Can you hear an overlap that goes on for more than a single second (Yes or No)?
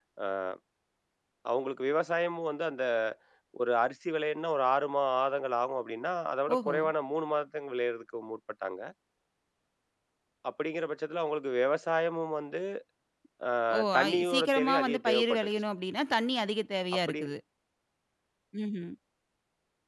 Yes